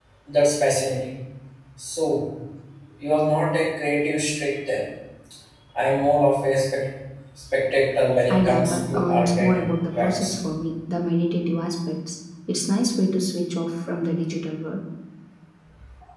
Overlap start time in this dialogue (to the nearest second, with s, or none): 8 s